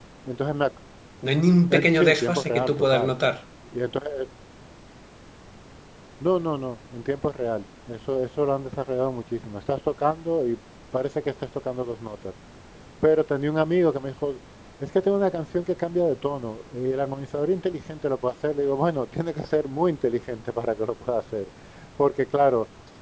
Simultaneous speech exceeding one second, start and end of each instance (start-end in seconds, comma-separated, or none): 1.7-3.1